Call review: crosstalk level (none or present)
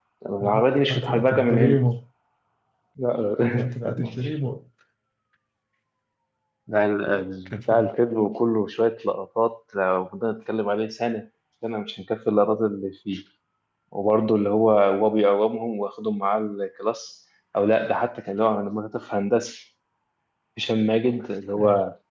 present